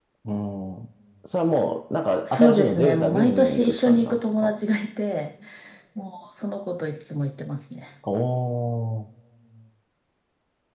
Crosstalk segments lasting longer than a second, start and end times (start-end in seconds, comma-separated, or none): 2.2-4.5